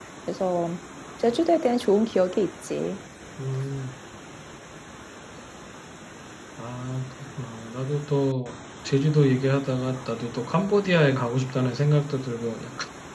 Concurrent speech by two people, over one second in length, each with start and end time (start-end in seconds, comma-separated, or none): none